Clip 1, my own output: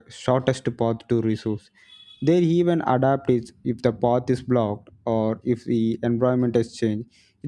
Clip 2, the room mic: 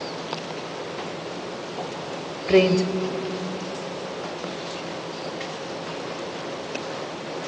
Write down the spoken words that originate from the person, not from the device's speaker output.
trains.

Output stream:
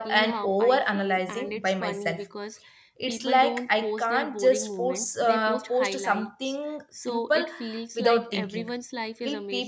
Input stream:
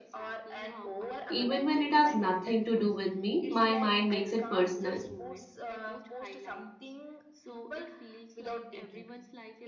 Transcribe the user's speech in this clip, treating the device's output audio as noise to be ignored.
Even when it has nothing to do with me, my mind makes it personal.

